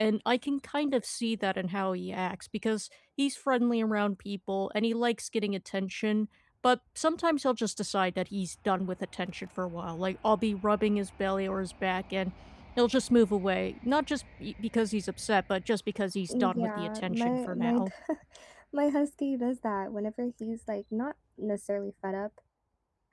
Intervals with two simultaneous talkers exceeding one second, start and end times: 16.3-17.8

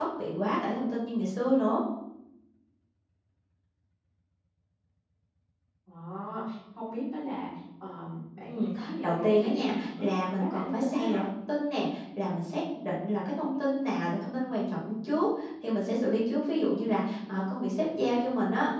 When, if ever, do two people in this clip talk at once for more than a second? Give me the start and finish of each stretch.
8.5-11.2

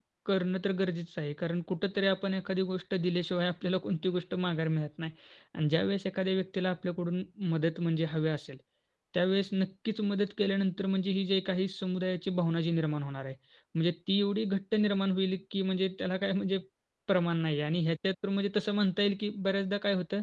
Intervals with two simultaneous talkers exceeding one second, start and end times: none

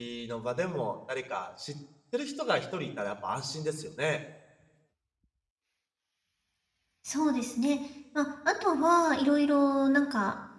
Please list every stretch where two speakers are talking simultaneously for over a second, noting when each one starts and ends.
none

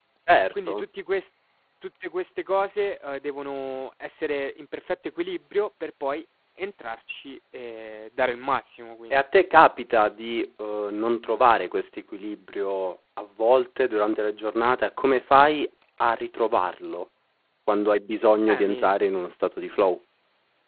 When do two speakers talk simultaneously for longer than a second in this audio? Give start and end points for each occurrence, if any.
none

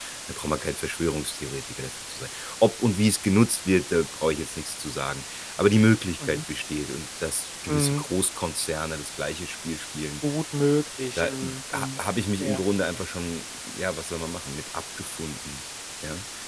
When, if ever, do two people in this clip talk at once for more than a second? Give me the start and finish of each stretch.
none

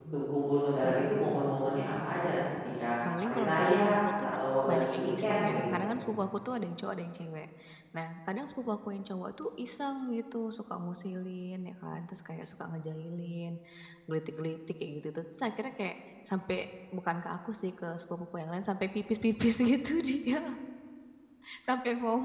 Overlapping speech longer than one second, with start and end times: 3.2-5.8

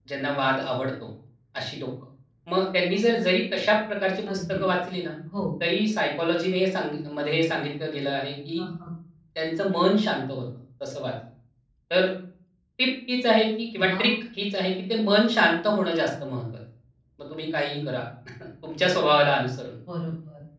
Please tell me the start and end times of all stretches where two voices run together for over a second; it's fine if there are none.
none

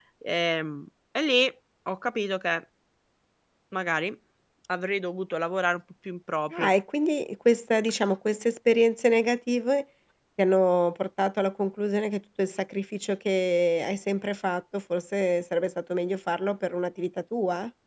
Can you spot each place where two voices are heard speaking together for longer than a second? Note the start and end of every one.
none

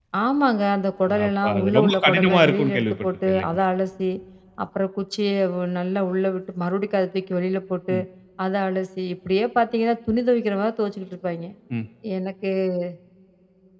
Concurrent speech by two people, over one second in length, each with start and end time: 1.2-3.6

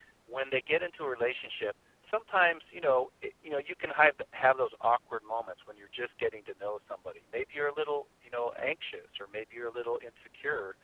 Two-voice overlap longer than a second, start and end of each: none

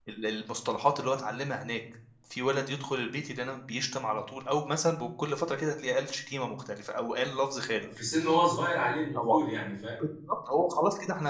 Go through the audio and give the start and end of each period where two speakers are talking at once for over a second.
none

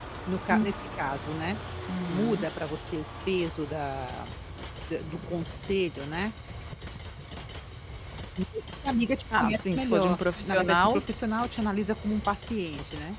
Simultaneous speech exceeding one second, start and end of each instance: 9.3-11.0

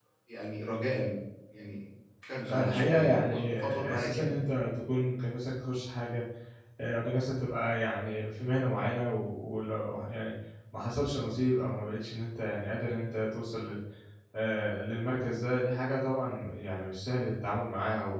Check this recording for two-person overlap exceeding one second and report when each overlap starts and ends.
2.5-4.4

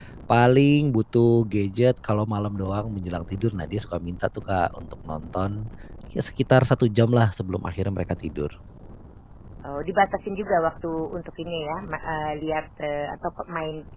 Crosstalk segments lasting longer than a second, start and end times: none

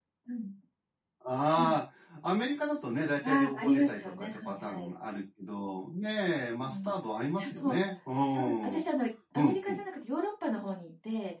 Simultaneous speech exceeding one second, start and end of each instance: 3.2-4.9

